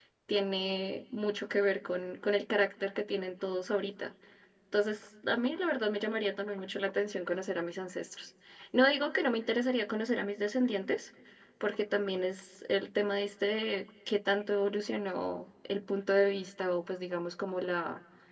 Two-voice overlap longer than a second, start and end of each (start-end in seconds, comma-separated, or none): none